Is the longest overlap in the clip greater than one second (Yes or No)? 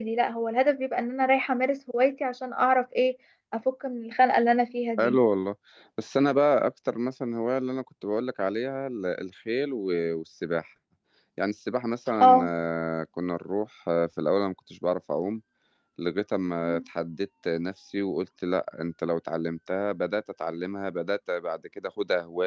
No